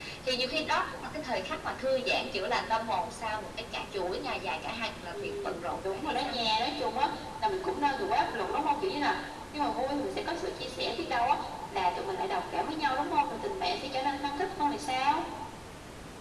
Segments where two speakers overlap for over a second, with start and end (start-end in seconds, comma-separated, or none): 5.1-6.5